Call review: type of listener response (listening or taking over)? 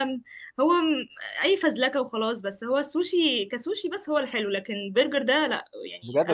taking over